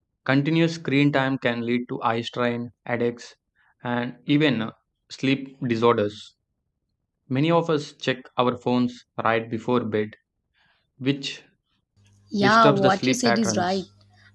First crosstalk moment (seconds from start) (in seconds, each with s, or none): 12.4 s